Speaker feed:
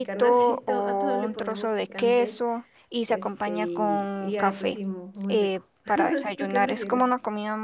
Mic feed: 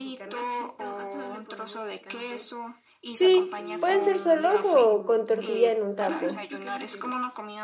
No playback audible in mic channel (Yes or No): No